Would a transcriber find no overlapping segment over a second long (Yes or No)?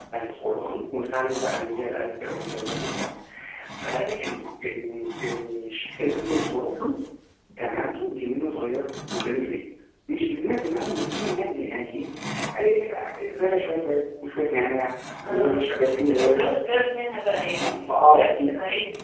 No